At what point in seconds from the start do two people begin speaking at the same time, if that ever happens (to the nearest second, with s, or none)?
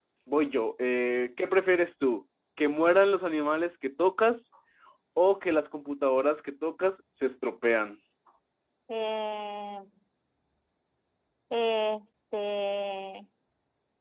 none